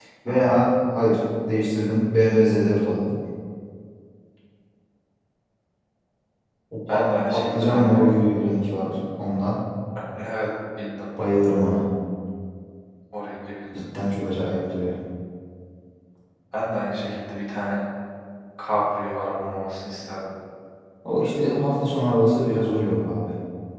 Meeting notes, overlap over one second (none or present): present